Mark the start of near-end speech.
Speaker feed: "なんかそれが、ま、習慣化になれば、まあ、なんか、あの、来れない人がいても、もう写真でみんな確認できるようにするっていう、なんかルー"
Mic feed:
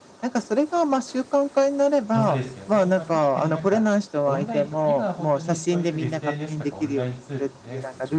2.1 s

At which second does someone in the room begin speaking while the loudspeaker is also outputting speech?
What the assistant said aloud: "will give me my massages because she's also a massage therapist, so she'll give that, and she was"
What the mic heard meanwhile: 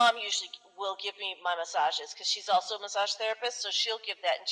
none

